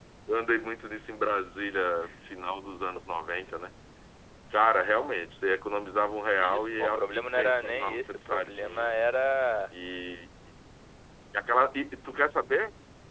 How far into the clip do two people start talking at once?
6.4 s

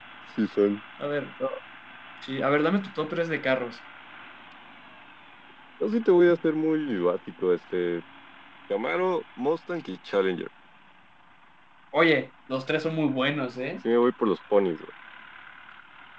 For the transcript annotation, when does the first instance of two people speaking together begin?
none

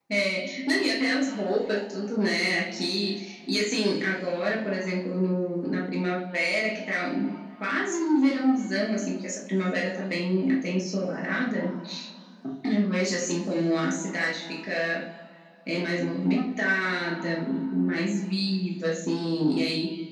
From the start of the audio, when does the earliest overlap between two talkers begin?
none

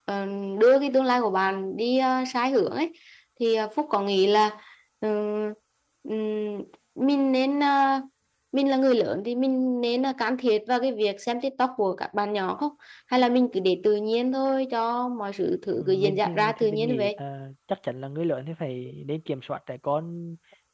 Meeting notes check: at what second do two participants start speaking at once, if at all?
15.8 s

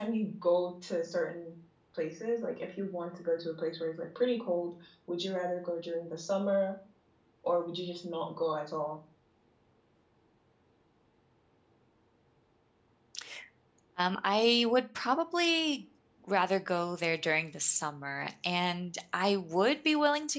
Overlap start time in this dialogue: none

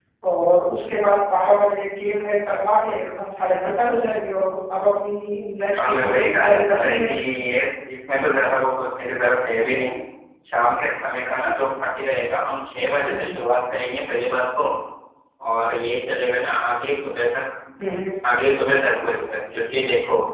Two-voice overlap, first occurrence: 5.8 s

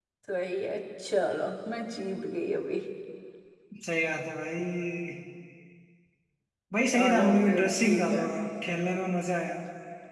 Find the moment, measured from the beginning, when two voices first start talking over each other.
6.8 s

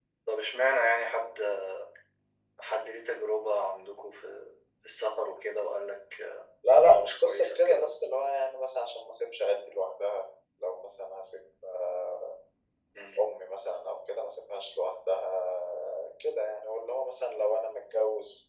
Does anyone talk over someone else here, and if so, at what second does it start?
6.6 s

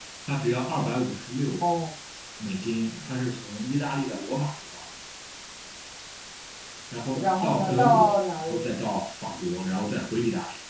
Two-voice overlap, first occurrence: 7.2 s

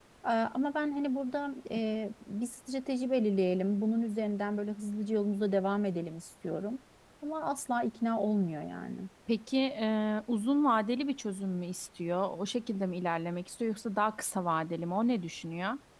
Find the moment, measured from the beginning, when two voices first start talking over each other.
none

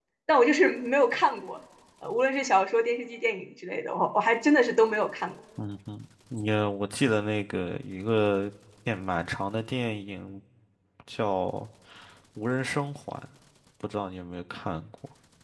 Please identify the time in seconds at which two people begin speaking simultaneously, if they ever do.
none

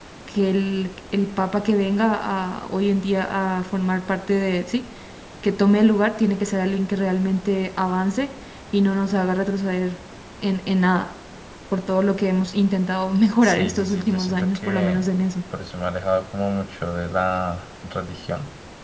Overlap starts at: 13.4 s

